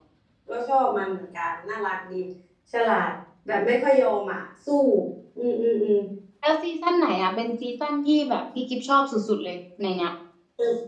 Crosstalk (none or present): none